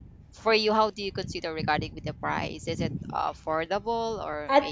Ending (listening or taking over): taking over